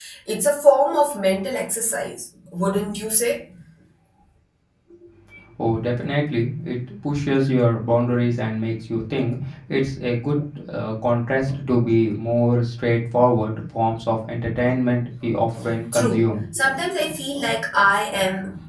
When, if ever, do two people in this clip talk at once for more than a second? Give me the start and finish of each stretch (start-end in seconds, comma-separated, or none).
none